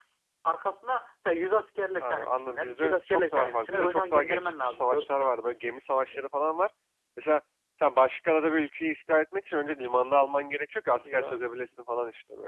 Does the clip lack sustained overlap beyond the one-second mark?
No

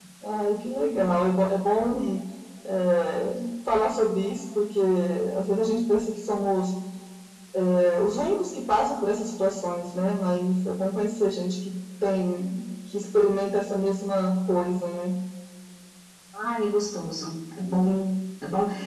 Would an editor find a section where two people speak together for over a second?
No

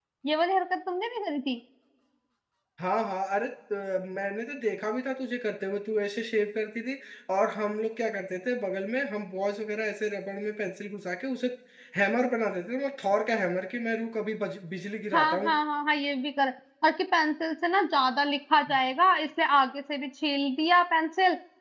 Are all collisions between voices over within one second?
Yes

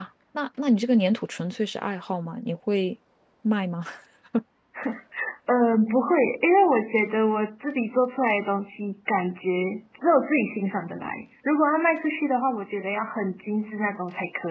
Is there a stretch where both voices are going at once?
No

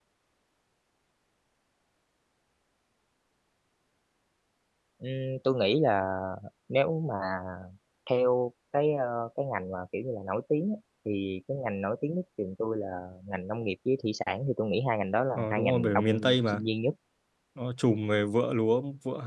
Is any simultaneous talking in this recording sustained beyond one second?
Yes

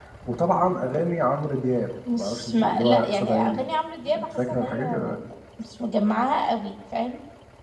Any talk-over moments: Yes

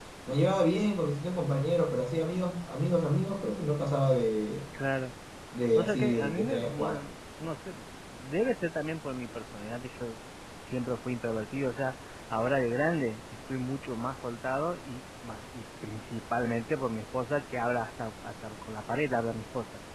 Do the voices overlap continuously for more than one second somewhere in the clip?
Yes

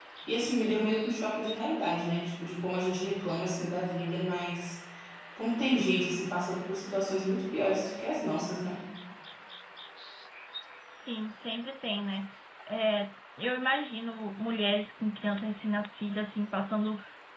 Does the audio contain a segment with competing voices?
No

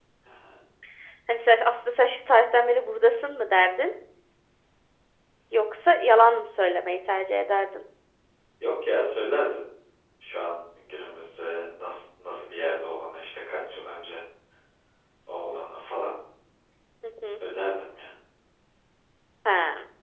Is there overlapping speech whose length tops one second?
No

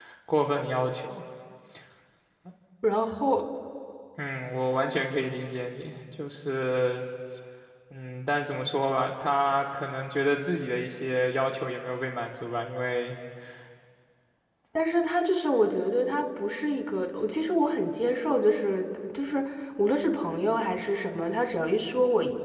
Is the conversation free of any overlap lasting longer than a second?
Yes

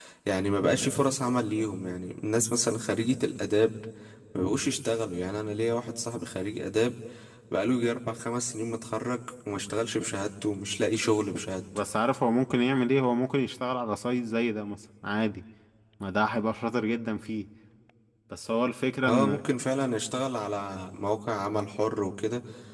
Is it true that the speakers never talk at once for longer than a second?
Yes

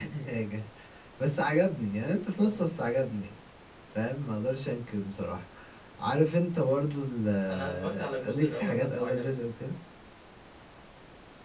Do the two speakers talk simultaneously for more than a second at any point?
Yes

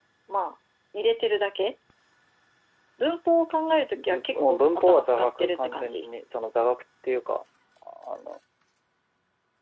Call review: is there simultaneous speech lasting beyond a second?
Yes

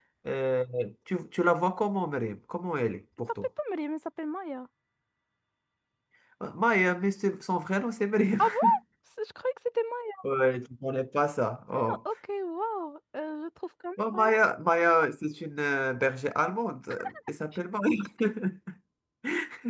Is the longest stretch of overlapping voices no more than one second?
Yes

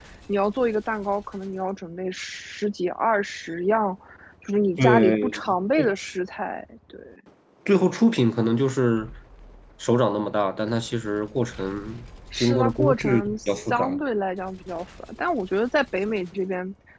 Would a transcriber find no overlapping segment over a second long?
No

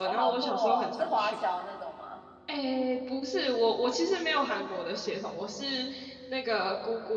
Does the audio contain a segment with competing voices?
Yes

